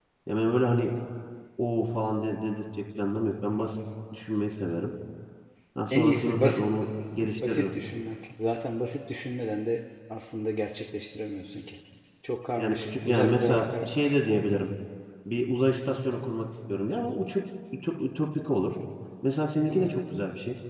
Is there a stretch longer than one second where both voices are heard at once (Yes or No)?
Yes